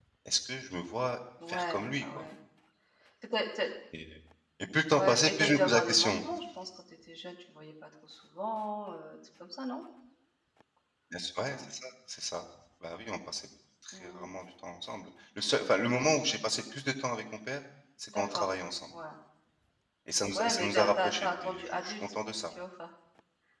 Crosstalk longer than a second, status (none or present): present